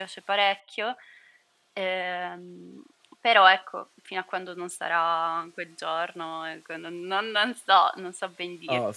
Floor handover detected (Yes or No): Yes